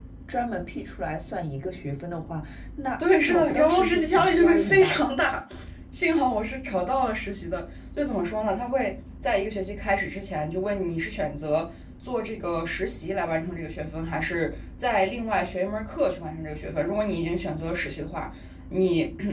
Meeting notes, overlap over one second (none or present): present